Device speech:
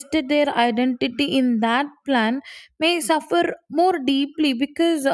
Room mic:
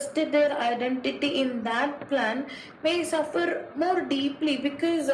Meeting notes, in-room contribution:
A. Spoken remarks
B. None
B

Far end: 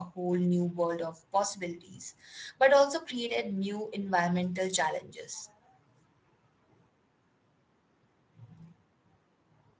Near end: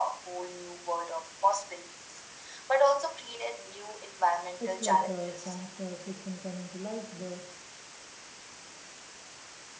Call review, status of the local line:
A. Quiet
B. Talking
B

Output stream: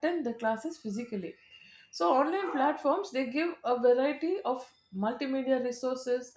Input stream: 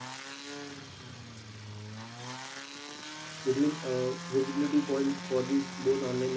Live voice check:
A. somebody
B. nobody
A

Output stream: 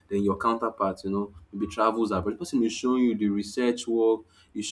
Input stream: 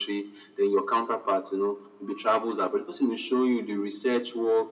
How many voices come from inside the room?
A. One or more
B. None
B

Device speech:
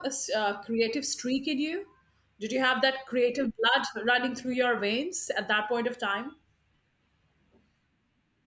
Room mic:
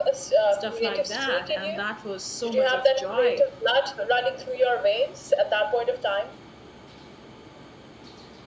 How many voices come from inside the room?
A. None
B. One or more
B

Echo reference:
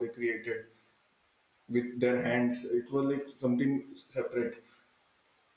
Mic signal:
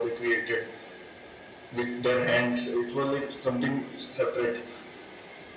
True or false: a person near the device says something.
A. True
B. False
B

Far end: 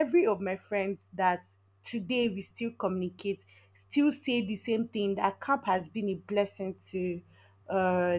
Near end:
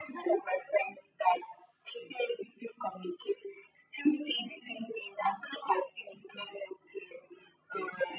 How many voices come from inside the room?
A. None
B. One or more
A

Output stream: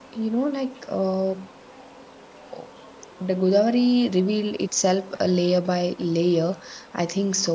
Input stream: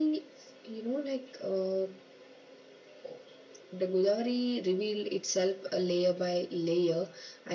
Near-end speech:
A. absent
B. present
A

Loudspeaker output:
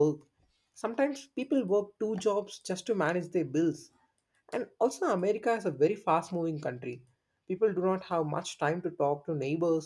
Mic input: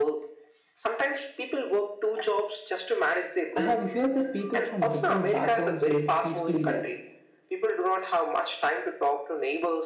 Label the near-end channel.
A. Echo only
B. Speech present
B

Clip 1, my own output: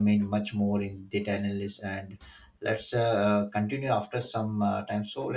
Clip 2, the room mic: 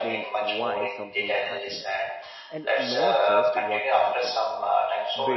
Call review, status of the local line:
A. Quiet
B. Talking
B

